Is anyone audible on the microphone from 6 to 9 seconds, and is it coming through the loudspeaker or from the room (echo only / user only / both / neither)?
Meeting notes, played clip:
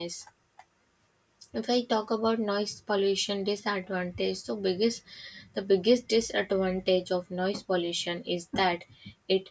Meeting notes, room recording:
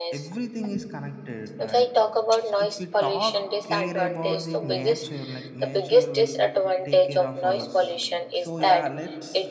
both